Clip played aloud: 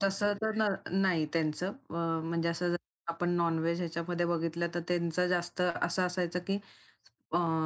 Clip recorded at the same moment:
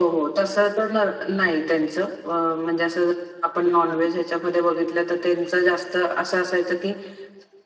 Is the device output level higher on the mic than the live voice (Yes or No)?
Yes